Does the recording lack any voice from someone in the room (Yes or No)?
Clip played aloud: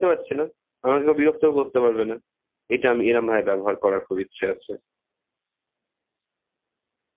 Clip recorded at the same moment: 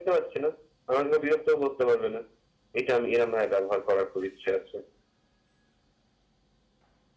Yes